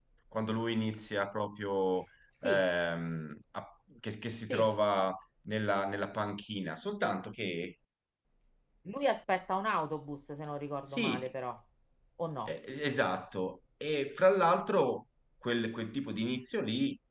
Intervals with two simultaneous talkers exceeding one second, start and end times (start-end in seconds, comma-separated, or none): none